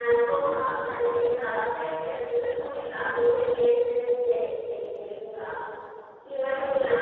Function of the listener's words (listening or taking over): listening